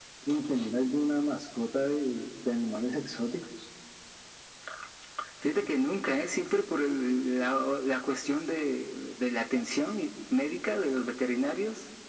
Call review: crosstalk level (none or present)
none